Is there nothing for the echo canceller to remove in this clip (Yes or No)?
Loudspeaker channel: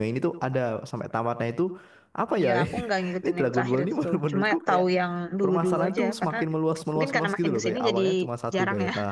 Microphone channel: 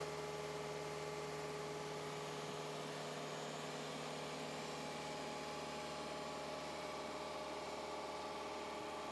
Yes